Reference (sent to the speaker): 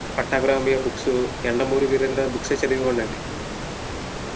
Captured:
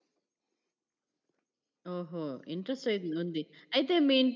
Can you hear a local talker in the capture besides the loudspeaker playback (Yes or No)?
Yes